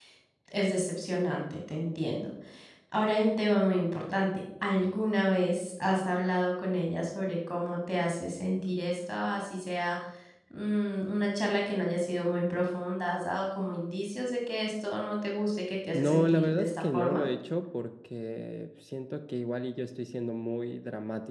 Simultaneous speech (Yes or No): Yes